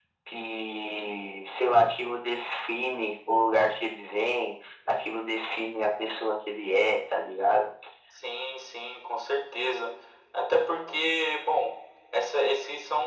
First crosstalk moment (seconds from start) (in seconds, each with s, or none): none